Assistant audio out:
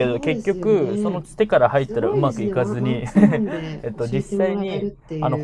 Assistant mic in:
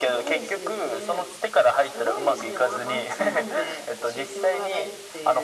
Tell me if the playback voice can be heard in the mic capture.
Yes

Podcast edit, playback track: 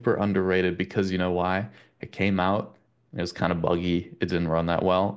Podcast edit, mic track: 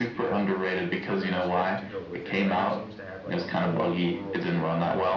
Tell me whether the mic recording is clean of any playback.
No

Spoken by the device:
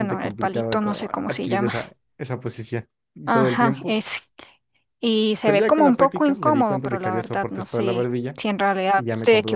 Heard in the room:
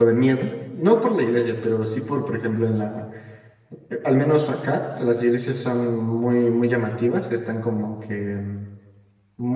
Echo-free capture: Yes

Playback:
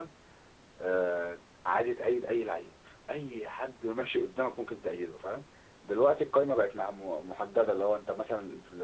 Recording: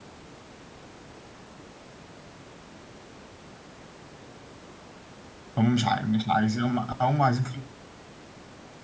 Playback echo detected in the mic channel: No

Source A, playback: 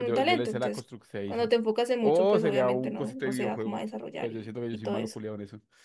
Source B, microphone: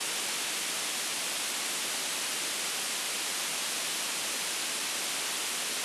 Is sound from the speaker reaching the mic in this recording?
No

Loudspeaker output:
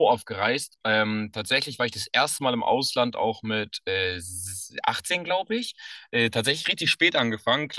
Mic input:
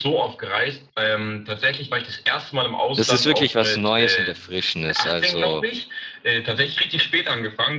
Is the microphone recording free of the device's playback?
No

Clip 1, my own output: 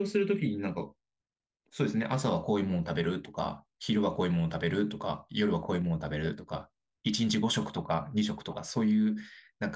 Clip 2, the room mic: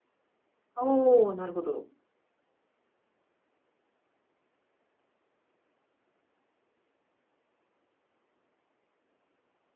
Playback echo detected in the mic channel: No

